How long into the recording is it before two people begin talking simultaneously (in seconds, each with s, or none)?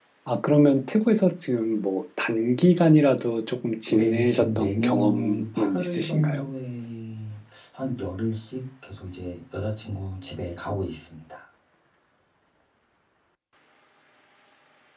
3.9 s